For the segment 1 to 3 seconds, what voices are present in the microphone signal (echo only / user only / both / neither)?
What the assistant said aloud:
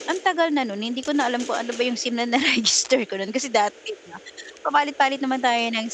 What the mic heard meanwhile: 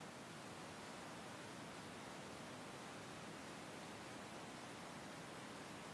neither